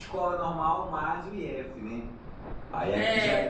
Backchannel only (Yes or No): Yes